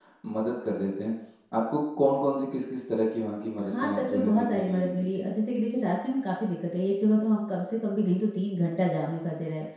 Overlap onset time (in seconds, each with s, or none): 3.6 s